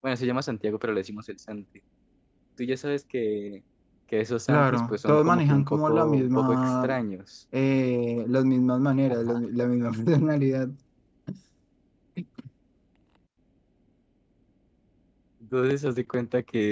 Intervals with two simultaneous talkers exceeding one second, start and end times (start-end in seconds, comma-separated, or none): 4.5-6.9